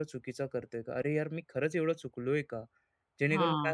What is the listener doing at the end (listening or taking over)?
listening